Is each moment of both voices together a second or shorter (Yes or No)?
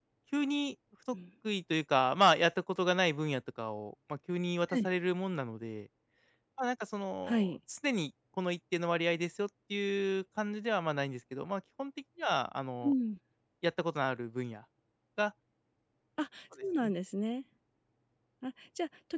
Yes